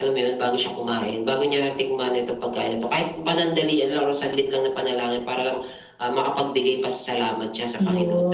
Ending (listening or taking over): taking over